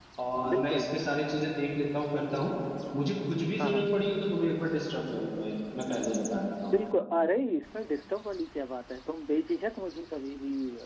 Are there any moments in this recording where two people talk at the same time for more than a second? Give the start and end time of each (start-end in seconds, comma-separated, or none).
none